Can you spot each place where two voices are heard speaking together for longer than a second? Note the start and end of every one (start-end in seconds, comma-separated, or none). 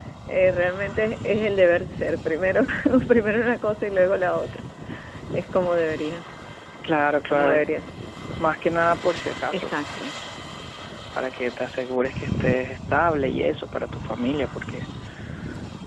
none